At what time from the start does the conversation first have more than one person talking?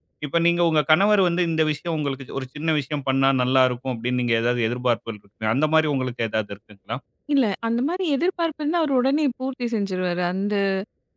none

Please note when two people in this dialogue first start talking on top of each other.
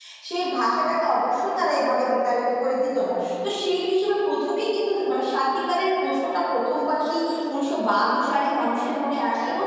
none

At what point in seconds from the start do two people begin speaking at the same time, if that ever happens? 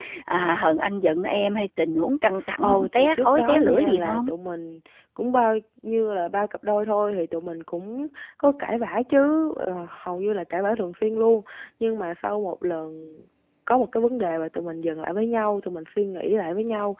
2.6 s

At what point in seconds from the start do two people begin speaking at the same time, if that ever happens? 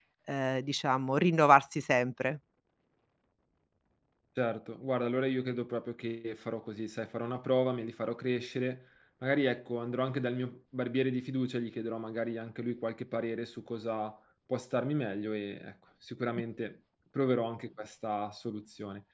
none

